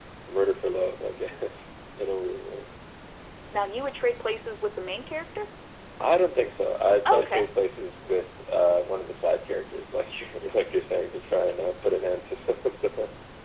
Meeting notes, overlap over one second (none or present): none